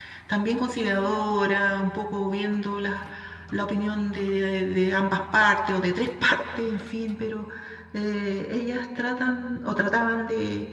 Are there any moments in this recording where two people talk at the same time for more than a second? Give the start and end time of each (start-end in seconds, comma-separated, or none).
none